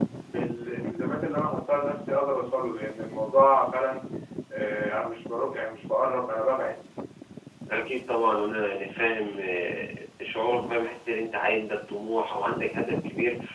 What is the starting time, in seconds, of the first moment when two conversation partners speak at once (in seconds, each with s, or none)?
none